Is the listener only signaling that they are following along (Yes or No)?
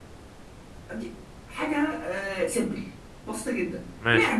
Yes